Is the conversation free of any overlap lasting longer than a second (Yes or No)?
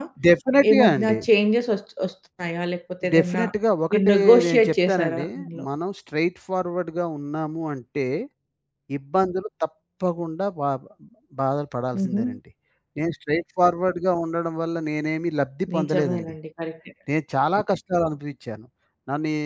No